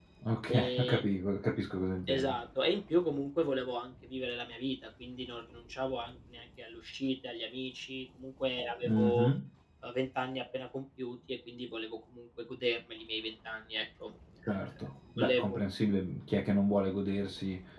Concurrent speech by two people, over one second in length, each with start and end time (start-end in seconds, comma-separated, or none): none